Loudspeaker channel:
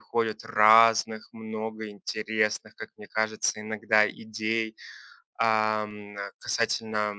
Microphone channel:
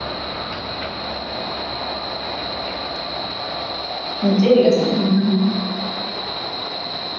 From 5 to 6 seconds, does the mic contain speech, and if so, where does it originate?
user only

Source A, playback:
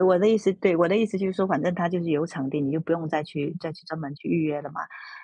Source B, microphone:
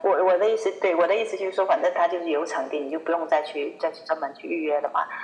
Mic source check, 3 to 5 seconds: echo only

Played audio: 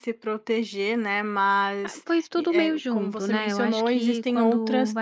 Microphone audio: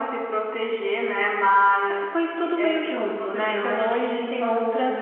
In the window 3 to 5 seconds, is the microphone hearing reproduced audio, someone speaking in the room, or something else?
echo only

